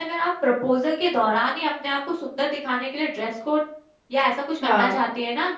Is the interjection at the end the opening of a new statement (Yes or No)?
No